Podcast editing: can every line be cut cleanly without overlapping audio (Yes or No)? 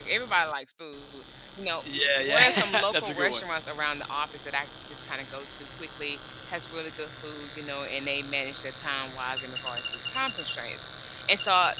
No